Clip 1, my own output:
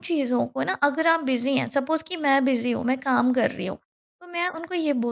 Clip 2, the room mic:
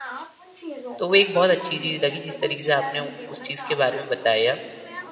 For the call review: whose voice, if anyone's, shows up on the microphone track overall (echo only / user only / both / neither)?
both